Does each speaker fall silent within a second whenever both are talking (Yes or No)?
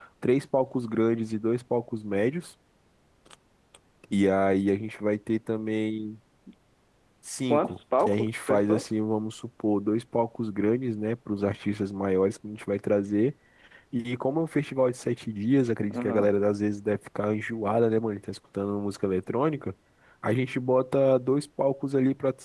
No